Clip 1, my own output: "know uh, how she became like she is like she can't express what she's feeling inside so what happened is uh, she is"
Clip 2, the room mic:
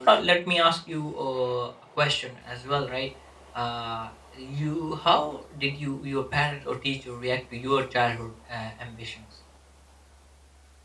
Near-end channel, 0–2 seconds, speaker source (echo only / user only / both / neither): user only